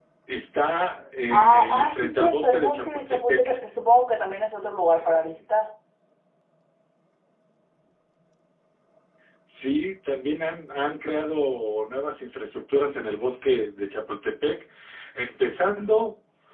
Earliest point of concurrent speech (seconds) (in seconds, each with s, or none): 1.3 s